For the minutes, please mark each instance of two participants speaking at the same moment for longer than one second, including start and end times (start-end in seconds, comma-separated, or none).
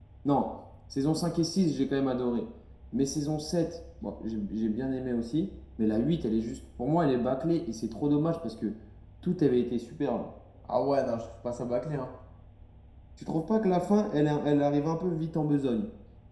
none